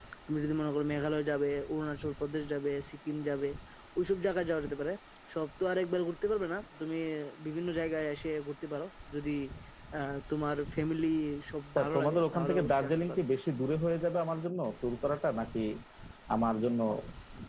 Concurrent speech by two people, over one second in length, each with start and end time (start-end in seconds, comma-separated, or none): 11.8-13.2